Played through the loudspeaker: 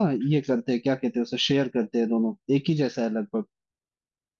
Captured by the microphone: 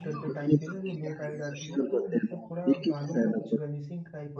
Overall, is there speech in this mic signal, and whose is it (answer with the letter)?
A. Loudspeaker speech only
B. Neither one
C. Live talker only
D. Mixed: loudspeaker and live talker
D